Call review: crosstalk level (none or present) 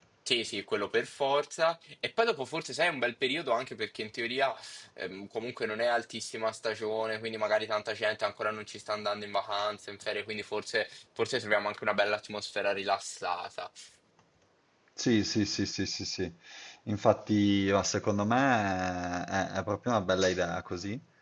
none